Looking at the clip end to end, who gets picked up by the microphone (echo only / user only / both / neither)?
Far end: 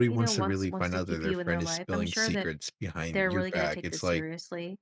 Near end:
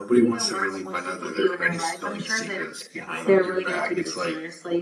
echo only